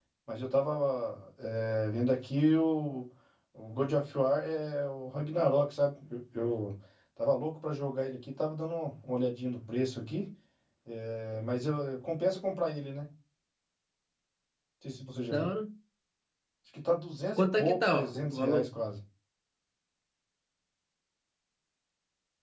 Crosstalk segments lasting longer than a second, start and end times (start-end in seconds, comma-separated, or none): 17.4-18.6